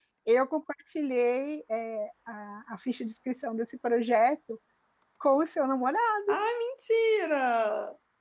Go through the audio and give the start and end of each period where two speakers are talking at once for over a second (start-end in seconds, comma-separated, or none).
none